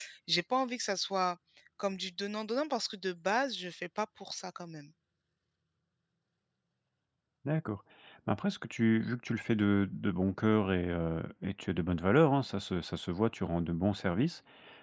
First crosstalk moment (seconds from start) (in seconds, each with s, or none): none